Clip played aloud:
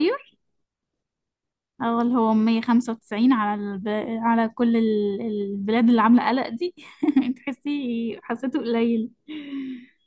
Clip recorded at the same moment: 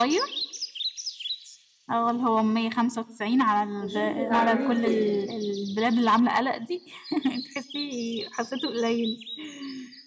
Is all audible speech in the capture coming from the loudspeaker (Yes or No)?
No